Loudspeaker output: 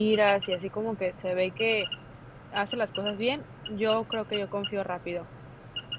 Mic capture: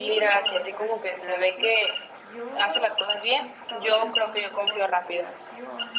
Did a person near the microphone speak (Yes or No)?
Yes